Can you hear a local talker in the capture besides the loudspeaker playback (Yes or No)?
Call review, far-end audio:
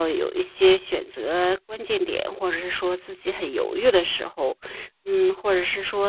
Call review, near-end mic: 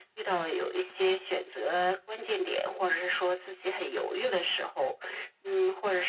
No